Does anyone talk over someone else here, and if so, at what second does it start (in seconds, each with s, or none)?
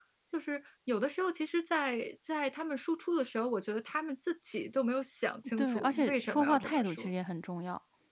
5.6 s